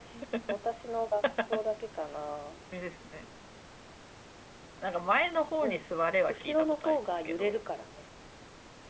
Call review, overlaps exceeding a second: present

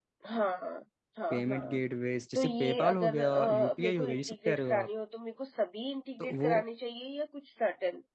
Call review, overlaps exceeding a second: present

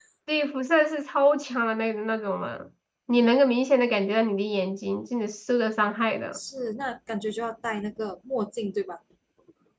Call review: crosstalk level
none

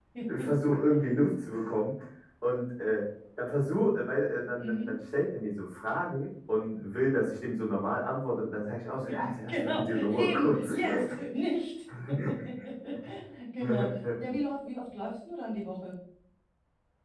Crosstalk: present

